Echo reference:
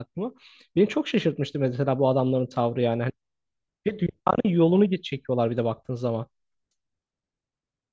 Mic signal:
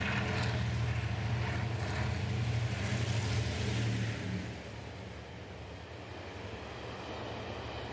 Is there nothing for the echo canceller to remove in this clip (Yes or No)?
Yes